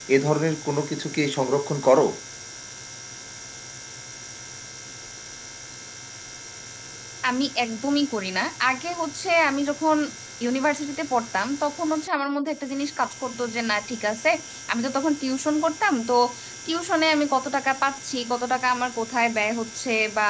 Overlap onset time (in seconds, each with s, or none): none